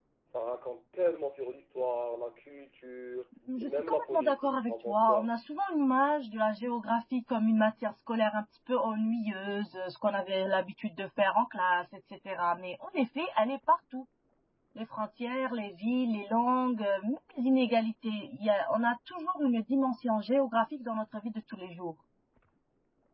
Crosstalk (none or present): present